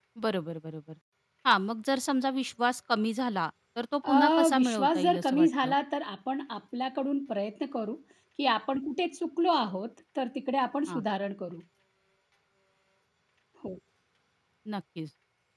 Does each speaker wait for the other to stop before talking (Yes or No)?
No